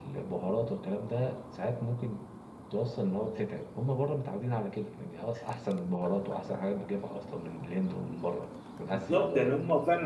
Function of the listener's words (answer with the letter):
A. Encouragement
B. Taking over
B